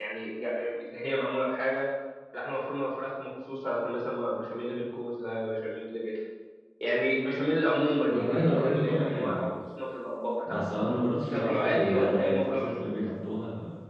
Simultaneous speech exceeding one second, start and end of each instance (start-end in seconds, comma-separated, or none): 8.1-9.5, 11.2-13.0